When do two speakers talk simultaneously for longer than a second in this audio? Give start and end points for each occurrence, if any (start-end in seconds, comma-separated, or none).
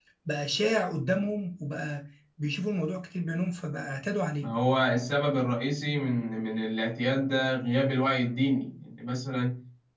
none